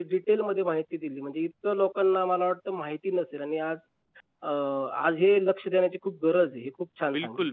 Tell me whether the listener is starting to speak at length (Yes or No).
Yes